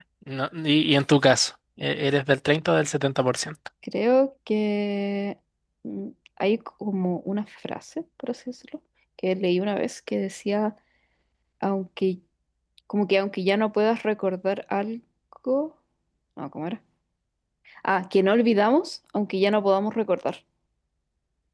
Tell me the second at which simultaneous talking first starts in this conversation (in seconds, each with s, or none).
none